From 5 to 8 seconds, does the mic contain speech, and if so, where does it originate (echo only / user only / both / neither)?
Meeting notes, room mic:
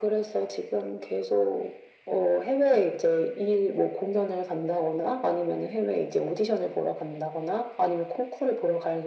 echo only